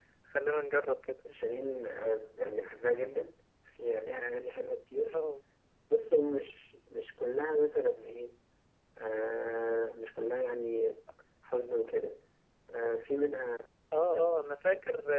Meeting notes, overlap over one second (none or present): none